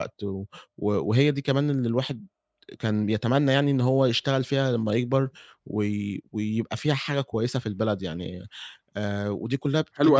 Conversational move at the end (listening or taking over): taking over